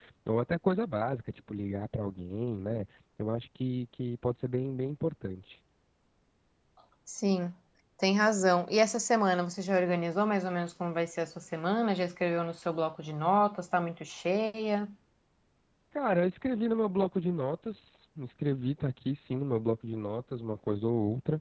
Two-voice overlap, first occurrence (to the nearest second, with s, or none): none